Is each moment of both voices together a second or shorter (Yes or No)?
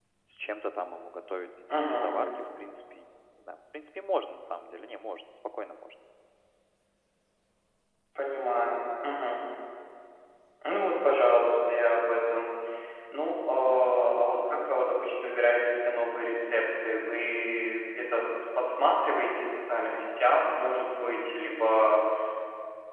Yes